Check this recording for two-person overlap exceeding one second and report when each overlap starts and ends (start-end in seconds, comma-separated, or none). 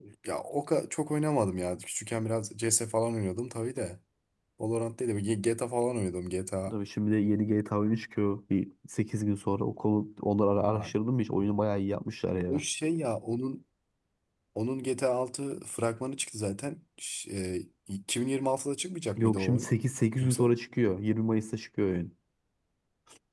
none